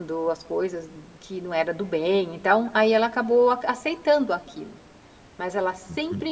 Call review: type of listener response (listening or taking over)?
listening